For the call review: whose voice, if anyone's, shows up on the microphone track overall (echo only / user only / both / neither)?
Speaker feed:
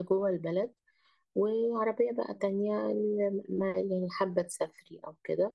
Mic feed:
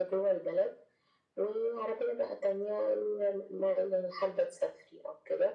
echo only